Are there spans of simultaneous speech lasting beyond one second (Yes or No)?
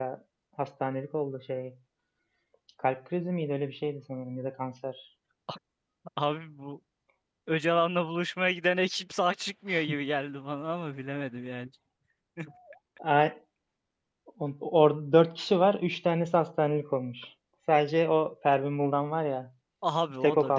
No